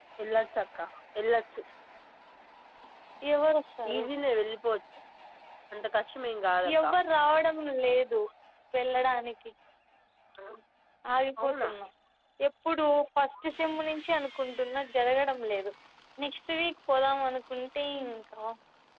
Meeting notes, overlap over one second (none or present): none